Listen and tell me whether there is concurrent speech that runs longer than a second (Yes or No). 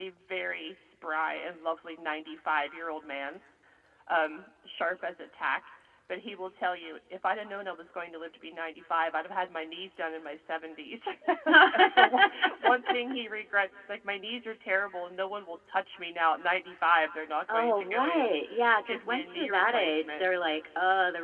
Yes